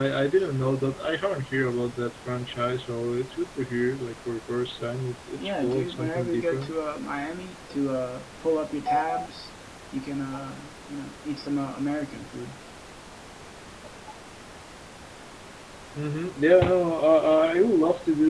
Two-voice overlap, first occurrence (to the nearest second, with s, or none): 5 s